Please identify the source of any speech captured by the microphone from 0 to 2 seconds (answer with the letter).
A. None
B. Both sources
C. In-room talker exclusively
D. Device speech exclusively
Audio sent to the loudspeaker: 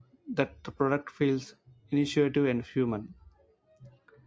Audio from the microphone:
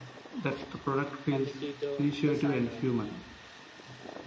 B